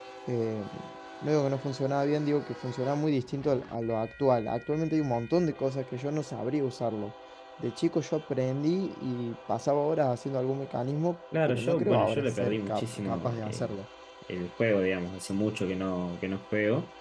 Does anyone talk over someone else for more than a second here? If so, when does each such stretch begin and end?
11.5-13.7

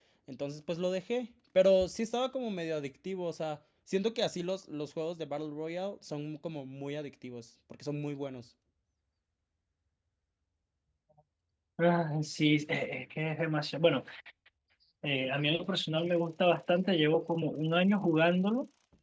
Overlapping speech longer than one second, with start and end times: none

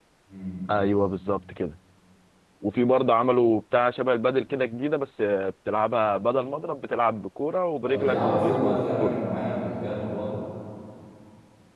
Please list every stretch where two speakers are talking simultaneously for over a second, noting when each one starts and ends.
7.9-9.2

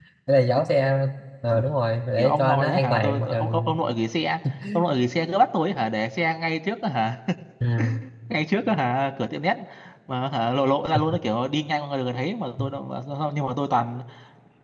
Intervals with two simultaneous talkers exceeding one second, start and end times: 2.2-3.8

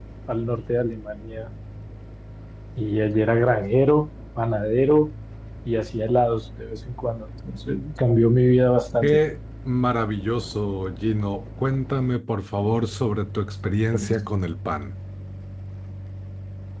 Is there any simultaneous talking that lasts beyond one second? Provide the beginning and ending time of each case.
none

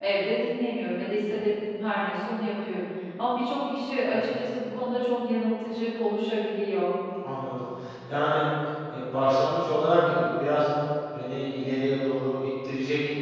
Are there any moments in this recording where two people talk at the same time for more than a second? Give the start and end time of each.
none

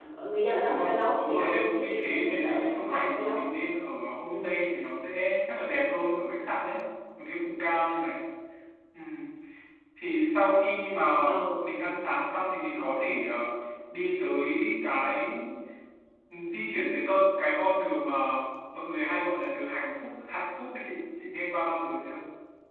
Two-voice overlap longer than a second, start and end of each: 0.6-3.5

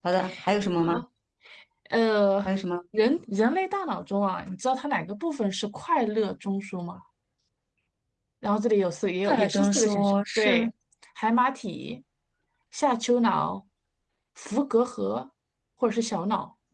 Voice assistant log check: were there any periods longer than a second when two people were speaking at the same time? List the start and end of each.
9.2-10.7

